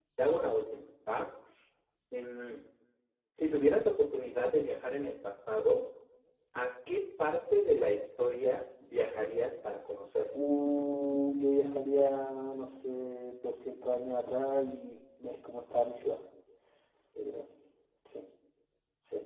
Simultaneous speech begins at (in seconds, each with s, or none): none